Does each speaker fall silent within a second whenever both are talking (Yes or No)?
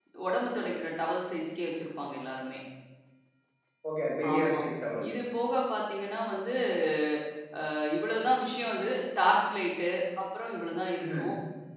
Yes